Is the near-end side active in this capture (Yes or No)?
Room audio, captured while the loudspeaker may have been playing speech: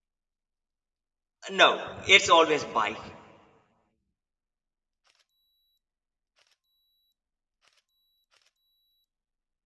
Yes